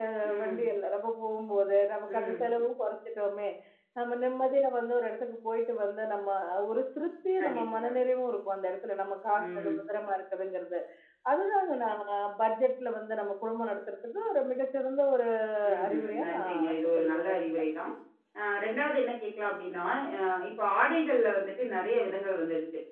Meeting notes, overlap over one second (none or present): present